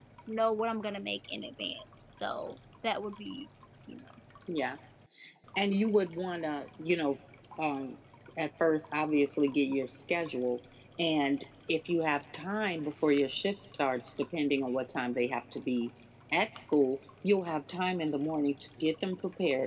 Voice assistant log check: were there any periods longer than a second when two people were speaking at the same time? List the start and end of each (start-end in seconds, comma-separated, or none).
none